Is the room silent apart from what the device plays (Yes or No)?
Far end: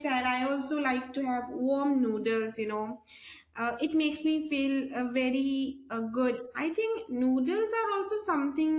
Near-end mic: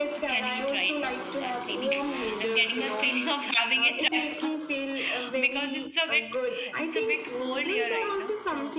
No